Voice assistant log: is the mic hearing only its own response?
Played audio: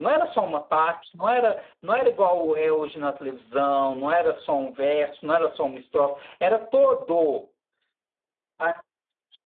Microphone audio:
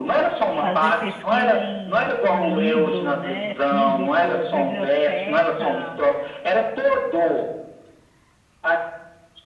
No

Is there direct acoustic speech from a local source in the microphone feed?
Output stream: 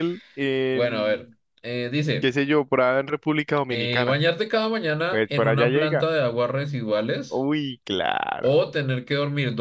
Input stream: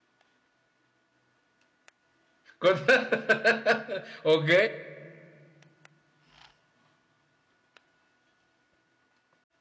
Yes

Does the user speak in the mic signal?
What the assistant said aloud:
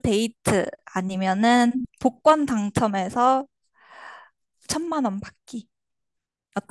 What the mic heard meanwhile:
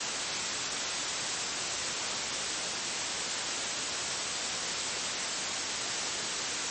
No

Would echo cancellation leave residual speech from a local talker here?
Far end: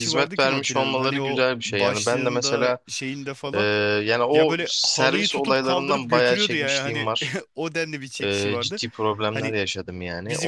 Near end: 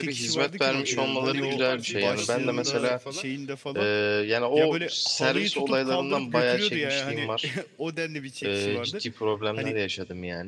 Yes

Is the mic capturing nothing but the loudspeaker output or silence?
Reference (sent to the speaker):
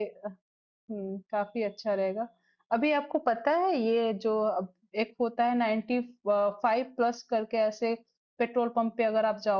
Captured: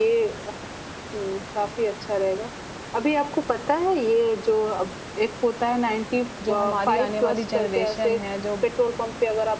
No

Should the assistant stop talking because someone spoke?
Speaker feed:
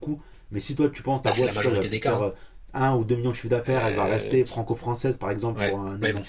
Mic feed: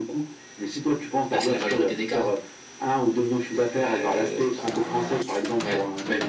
No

